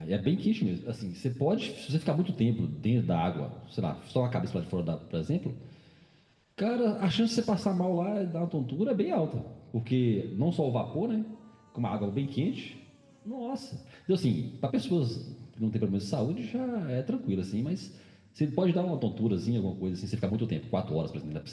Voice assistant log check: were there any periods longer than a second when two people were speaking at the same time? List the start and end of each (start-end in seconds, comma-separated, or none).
none